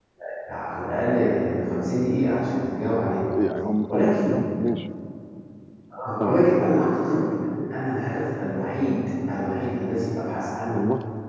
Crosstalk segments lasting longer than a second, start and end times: none

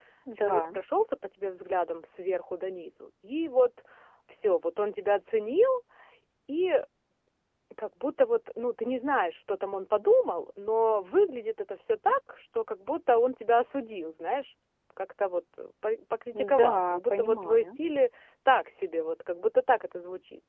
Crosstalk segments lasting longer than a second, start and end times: 16.3-17.8

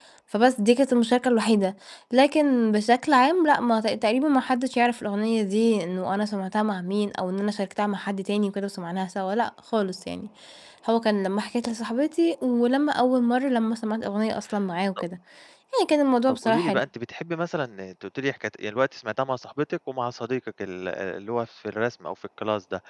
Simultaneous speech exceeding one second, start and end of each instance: none

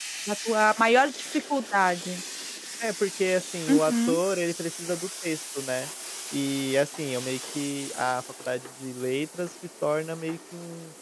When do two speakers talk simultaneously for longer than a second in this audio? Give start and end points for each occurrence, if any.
none

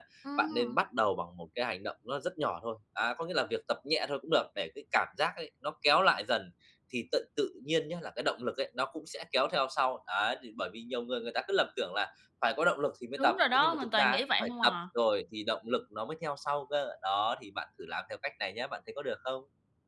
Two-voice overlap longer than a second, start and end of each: 13.2-14.8

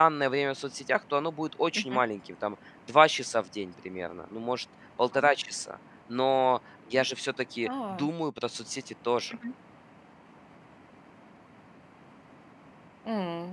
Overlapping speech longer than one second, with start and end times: none

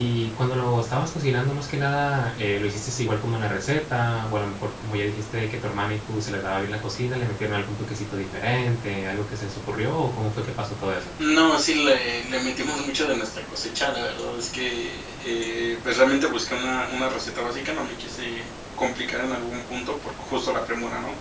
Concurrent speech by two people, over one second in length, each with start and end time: none

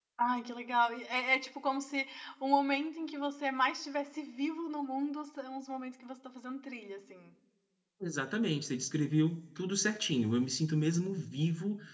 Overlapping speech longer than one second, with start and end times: none

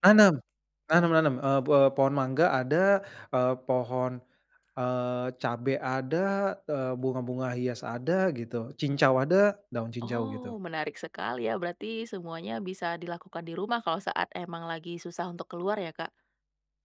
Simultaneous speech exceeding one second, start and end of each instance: none

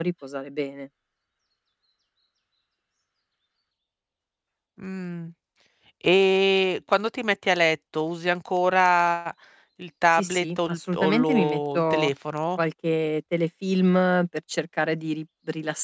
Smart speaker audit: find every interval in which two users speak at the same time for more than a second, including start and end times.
10.1-12.1

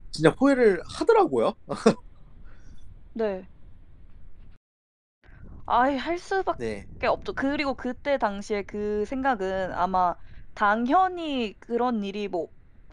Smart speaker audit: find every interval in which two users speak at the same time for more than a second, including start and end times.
none

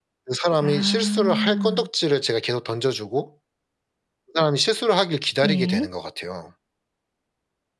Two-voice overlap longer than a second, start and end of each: 0.6-1.9

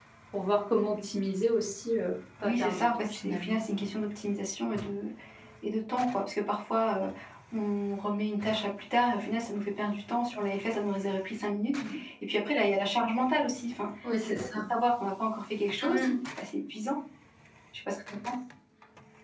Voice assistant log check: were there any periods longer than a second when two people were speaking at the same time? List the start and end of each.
2.4-3.9

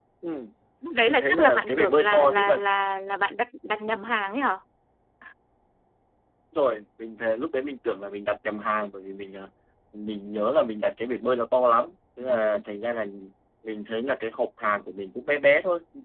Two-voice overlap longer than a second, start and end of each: 1.1-2.6

